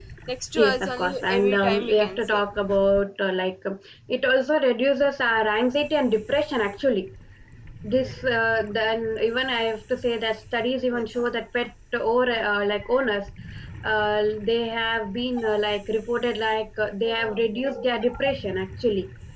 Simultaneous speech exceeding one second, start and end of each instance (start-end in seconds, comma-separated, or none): 0.6-2.4